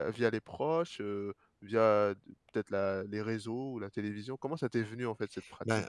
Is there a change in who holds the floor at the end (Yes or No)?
Yes